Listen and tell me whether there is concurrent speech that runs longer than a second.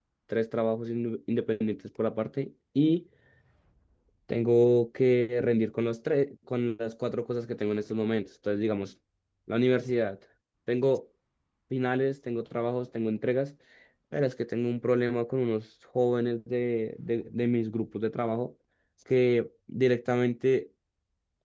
No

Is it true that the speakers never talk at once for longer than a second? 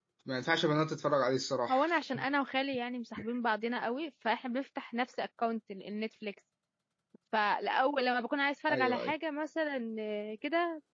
Yes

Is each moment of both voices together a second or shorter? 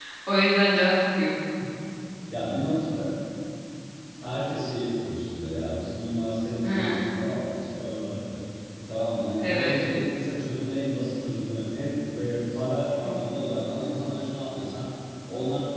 Yes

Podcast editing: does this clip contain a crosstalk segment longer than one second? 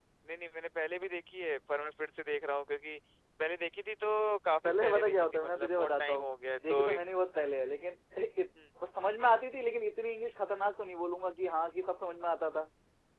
Yes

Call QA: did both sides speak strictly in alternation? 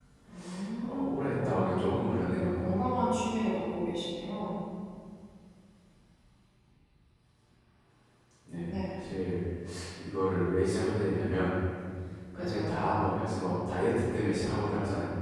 No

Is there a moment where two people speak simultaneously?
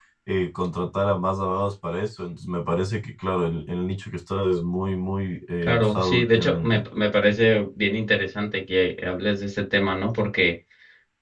Yes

